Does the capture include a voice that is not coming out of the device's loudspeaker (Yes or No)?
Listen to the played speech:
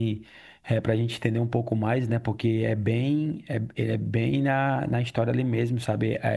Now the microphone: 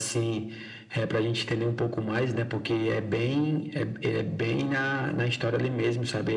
No